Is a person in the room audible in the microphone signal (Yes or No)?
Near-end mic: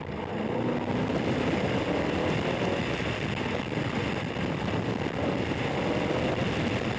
No